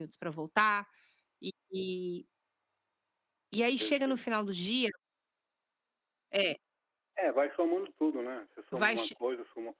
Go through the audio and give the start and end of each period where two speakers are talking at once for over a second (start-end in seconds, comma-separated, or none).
none